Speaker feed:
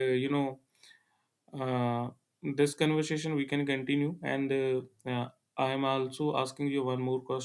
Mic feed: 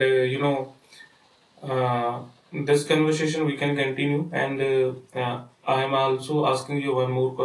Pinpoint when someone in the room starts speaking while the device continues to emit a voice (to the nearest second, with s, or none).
none